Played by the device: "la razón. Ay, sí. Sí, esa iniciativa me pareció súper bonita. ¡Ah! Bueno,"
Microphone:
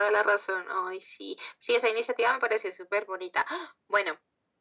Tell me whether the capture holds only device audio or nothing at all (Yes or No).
Yes